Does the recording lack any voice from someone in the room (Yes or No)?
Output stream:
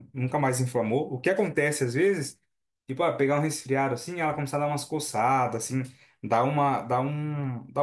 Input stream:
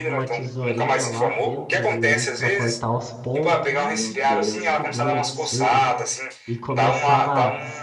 No